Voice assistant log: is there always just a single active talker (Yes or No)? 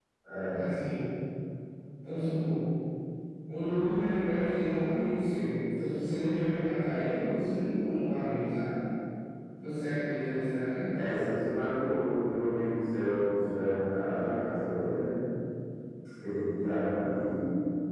Yes